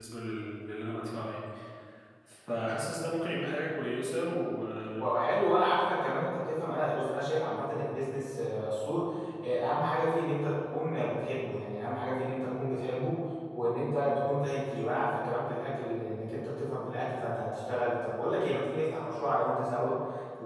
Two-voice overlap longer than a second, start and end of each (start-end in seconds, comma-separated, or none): none